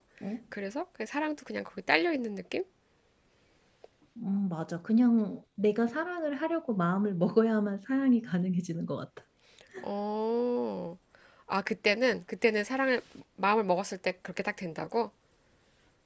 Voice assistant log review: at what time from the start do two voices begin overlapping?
none

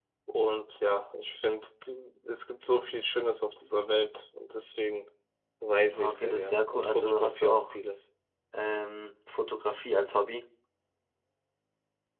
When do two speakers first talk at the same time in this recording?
5.9 s

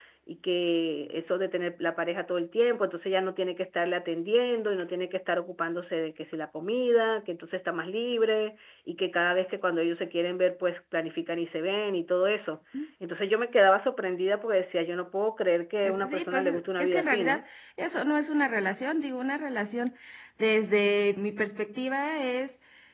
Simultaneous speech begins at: 15.8 s

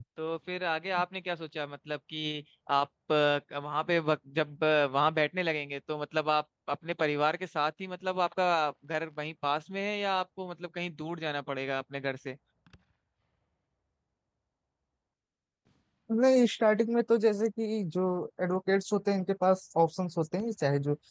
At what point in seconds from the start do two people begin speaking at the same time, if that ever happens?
none

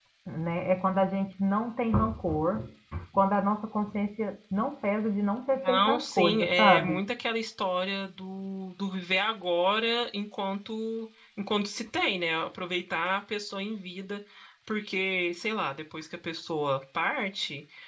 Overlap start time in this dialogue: 5.5 s

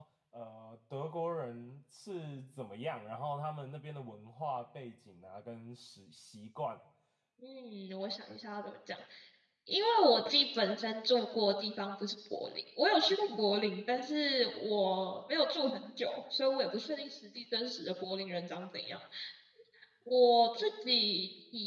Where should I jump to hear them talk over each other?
none

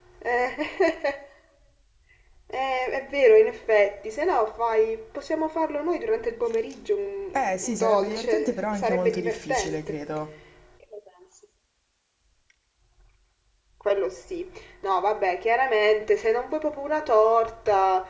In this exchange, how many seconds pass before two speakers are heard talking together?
7.3 s

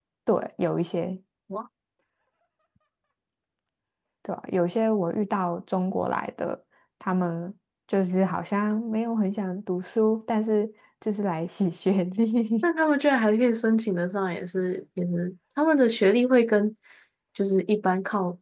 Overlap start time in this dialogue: none

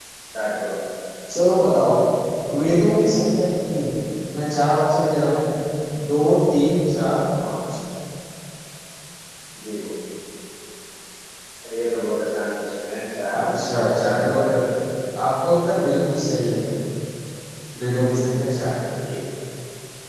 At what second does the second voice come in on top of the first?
13.3 s

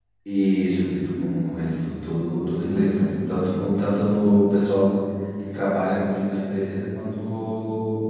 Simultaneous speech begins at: none

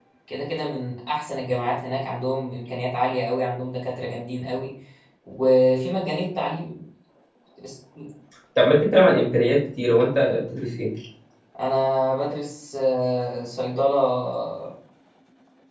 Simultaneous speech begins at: none

